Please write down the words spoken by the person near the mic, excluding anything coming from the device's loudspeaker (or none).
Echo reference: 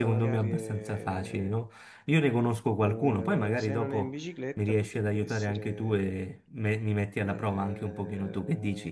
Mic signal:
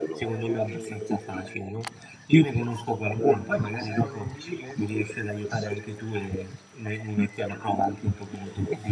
none